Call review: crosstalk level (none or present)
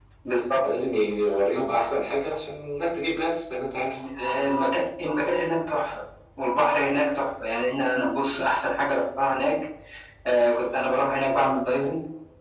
none